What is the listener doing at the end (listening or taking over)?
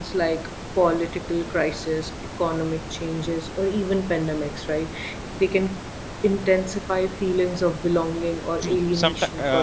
taking over